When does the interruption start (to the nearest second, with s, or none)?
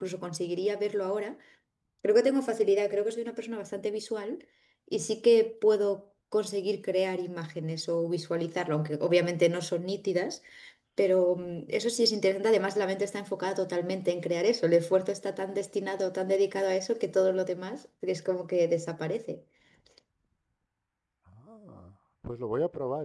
none